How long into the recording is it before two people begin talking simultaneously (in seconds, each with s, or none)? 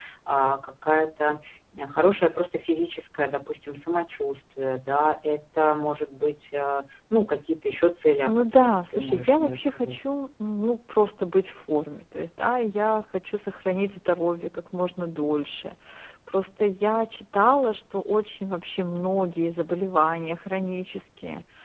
8.3 s